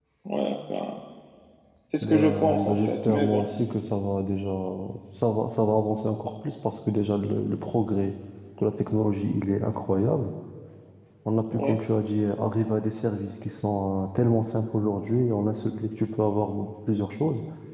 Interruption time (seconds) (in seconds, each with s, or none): 2.0 s